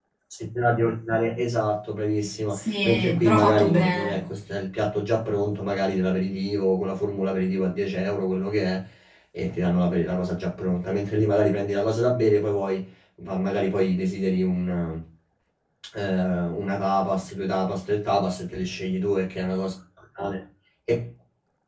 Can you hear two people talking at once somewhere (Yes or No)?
Yes